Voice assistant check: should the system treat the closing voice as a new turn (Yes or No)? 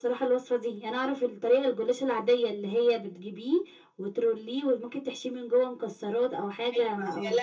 Yes